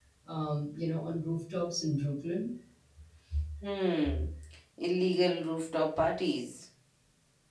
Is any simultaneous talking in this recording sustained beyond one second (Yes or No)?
No